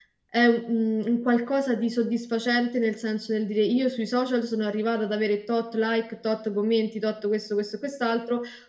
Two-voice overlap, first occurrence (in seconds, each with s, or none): none